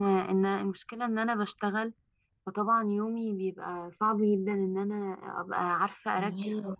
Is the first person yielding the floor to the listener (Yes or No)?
No